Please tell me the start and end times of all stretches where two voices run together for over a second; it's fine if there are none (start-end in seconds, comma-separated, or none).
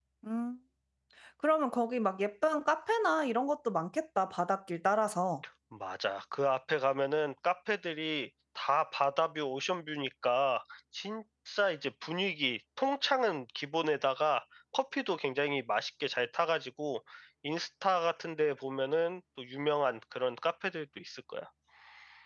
none